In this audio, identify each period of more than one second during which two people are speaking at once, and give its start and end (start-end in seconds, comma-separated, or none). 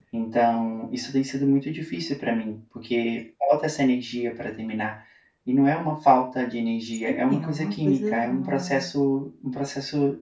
7.0-8.9